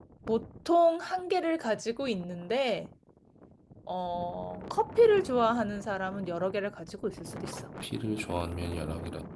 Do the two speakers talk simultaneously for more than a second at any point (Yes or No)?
No